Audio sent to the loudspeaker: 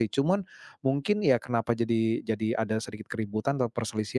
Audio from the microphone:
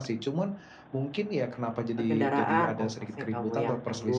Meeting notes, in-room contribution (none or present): present